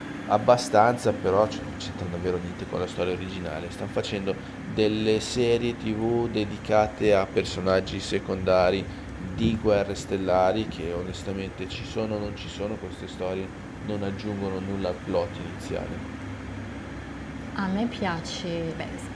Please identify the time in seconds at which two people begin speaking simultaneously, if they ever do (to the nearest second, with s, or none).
none